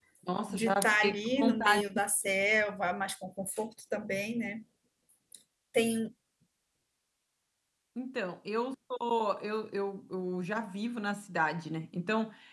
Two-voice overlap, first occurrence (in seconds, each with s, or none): 0.5 s